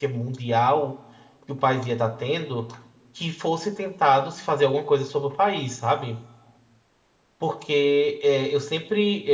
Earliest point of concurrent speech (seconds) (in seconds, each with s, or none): none